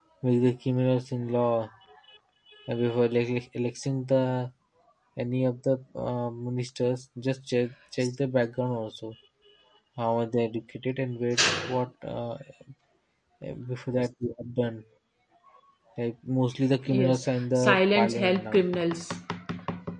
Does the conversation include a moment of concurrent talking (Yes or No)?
Yes